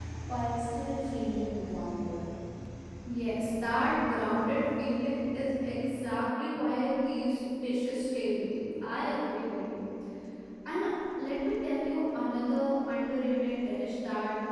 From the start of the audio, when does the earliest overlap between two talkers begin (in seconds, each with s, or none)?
none